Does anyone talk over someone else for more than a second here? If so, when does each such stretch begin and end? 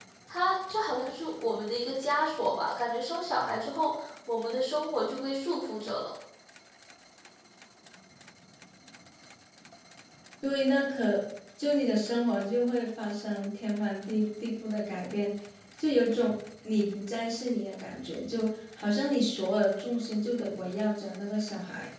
none

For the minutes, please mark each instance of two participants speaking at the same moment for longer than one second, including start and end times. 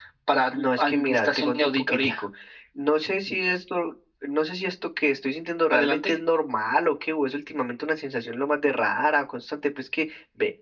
0.5-2.1

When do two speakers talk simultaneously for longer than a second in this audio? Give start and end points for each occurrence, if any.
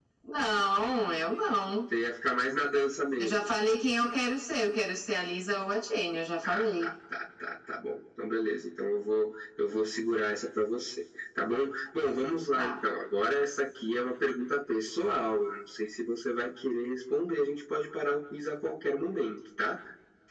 none

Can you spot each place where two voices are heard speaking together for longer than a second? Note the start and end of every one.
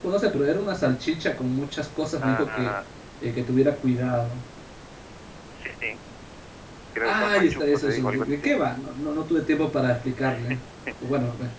7.0-8.6

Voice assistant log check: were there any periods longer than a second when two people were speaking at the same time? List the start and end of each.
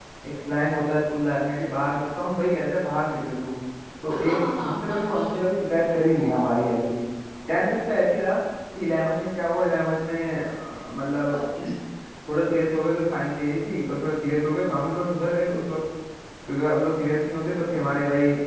4.1-5.3

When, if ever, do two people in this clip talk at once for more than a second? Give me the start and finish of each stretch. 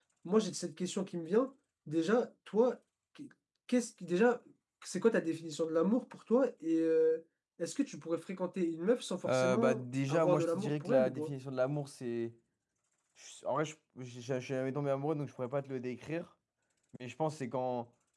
9.2-11.3

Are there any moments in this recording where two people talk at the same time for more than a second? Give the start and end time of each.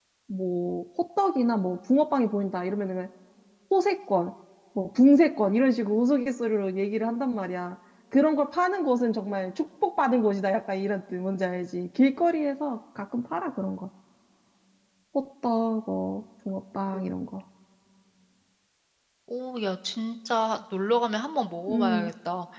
none

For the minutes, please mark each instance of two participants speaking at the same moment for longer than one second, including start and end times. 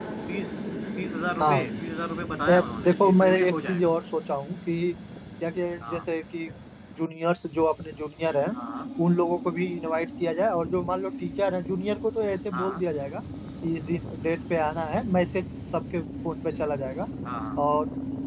2.5-3.9

